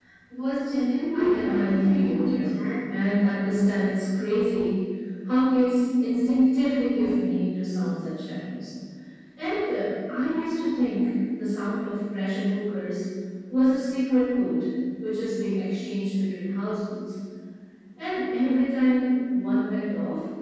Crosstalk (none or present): present